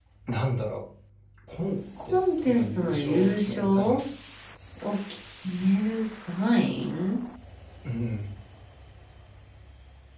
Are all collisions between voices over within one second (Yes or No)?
No